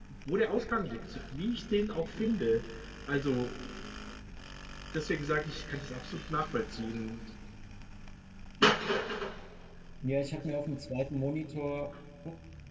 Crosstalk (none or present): none